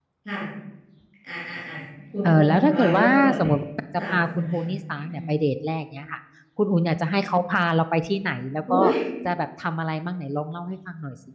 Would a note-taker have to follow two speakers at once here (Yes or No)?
Yes